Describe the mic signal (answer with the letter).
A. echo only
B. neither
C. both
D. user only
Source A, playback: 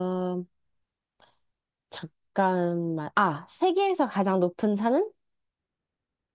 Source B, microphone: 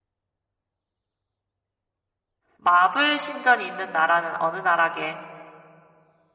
D